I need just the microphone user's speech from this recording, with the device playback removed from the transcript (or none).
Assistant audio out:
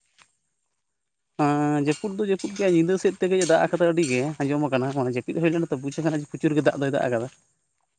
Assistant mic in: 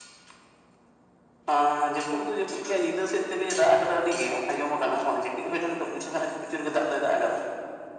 none